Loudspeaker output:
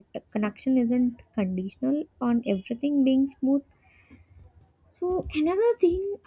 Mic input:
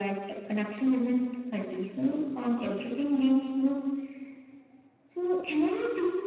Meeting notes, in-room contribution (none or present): none